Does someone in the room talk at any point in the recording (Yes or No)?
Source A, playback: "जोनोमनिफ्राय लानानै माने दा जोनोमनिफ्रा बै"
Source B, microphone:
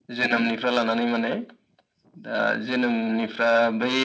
No